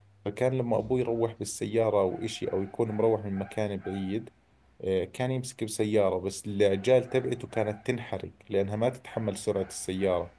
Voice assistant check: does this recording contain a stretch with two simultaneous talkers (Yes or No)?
No